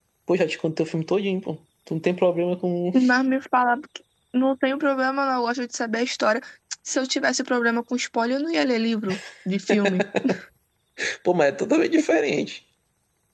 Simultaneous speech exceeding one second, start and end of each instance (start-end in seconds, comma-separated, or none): none